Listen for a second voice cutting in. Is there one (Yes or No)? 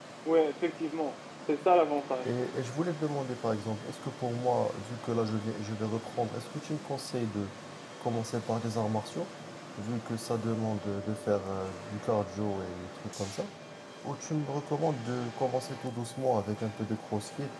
No